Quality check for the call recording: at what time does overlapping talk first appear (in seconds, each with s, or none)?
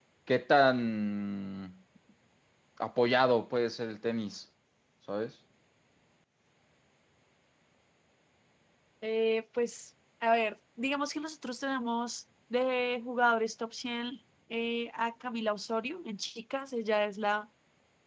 none